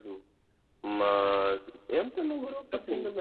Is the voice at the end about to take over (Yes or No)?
No